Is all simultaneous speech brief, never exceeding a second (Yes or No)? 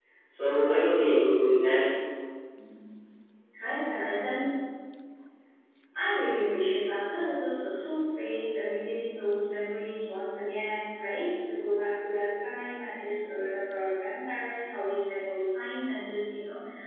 Yes